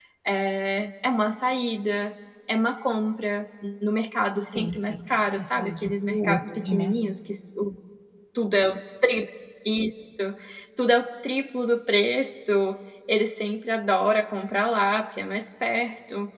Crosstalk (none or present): present